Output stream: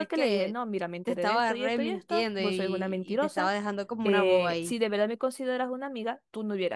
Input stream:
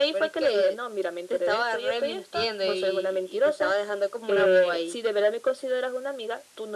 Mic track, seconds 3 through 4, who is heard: echo only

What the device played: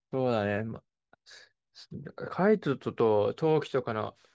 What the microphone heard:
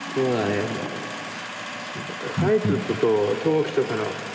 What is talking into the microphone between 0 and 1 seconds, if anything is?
echo only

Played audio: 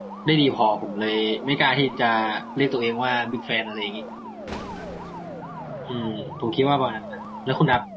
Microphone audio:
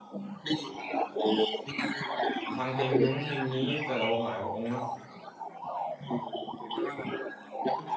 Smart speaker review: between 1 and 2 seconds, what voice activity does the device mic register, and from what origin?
echo only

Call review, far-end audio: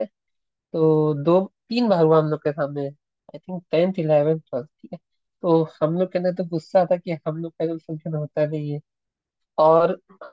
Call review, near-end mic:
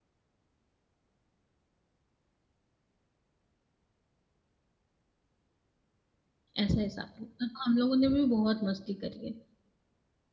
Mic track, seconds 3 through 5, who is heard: neither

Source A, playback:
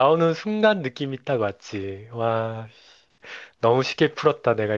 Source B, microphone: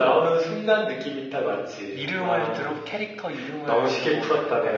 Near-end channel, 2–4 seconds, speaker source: both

